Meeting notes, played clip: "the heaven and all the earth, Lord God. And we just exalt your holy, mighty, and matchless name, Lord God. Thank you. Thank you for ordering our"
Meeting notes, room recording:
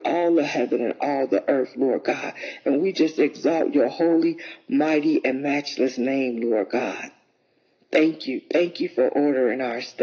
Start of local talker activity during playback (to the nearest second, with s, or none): none